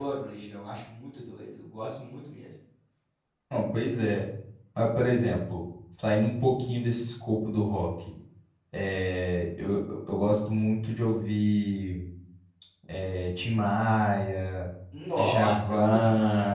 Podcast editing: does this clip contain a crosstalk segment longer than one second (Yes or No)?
Yes